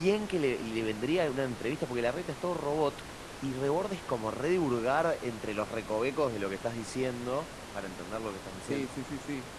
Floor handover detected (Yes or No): Yes